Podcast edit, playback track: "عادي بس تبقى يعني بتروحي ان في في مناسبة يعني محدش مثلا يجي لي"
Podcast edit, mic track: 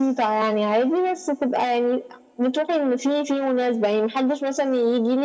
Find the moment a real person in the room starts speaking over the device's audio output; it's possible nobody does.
none

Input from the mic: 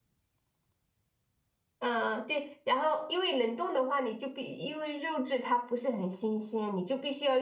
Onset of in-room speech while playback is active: 1.8 s

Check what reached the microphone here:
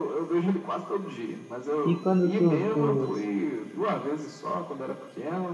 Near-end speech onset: 1.8 s

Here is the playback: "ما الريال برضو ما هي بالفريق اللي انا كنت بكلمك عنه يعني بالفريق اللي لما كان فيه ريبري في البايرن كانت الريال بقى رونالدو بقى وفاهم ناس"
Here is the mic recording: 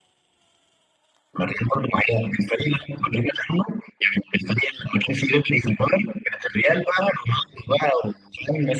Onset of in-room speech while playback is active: none

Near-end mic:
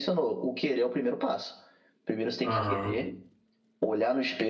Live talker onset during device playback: 2.4 s

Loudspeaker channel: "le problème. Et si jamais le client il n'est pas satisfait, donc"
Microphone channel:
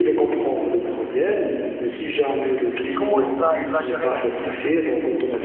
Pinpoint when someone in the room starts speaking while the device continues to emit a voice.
3.0 s

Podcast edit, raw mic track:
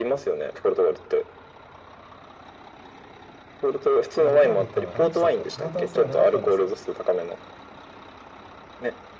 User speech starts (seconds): 4.2 s

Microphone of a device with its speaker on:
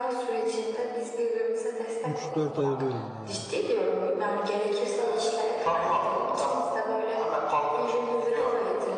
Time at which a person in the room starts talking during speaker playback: 2.0 s

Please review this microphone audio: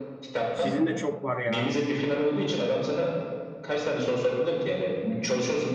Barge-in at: 0.5 s

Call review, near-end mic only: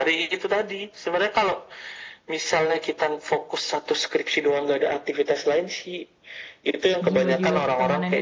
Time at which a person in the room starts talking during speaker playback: 7.1 s

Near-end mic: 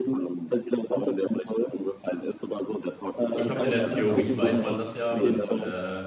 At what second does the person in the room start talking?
3.3 s

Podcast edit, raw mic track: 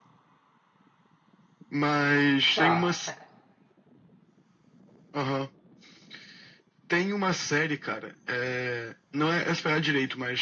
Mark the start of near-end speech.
2.5 s

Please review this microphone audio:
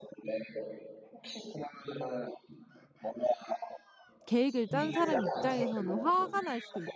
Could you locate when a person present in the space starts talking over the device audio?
4.3 s

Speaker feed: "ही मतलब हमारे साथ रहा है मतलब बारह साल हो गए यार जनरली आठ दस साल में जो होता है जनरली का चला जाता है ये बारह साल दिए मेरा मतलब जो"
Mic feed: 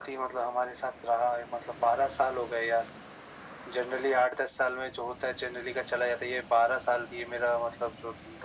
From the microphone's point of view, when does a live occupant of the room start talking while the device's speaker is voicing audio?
none

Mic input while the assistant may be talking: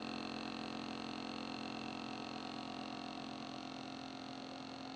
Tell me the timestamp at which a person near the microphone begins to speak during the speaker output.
none

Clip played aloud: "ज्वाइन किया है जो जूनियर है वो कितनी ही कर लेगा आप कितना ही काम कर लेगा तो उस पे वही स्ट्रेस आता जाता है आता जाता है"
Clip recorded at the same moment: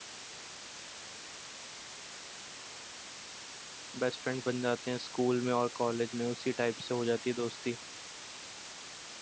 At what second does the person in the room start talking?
4.0 s

